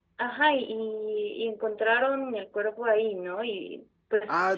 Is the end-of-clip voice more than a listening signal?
Yes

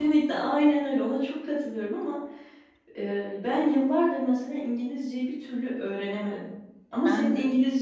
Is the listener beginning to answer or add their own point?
No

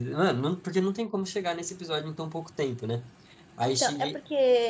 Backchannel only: No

